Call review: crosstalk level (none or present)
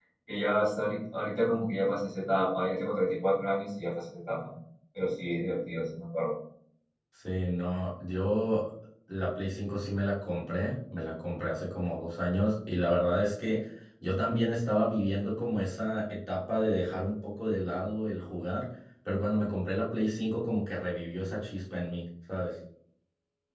none